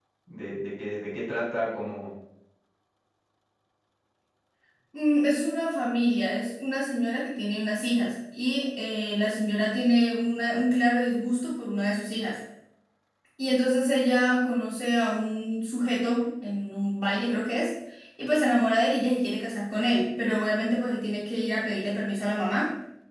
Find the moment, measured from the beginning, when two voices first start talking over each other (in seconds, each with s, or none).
none